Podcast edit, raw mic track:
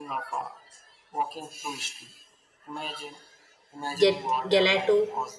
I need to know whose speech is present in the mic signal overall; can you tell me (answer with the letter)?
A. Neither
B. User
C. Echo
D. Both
D